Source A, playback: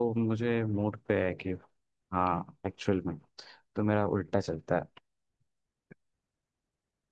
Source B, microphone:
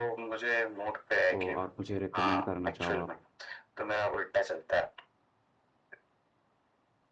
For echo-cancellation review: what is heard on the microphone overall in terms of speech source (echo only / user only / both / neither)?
both